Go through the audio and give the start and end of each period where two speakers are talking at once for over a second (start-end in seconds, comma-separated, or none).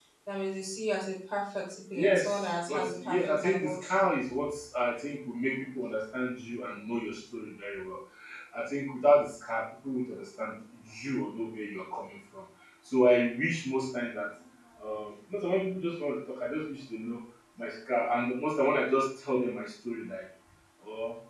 1.9-4.1